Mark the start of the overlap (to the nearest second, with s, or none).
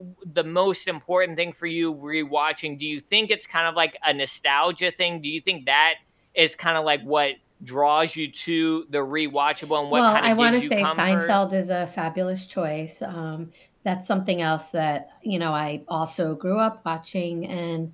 10 s